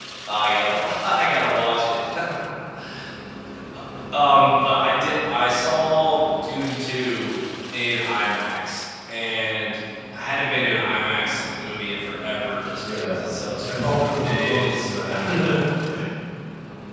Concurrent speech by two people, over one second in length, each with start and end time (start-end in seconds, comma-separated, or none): 13.8-15.5